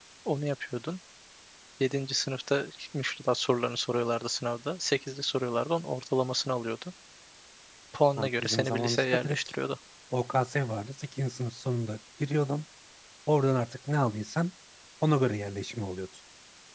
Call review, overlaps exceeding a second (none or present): present